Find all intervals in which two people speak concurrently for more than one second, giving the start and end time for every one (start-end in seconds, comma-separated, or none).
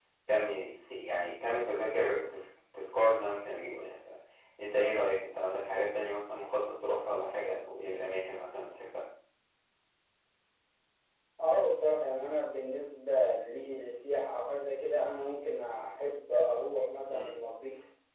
none